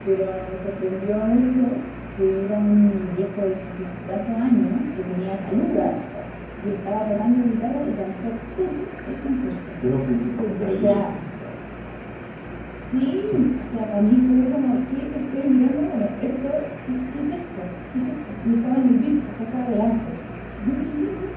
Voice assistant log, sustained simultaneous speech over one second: none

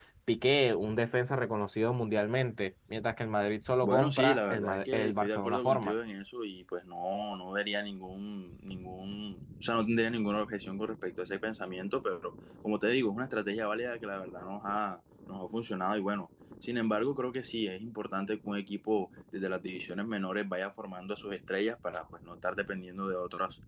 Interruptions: present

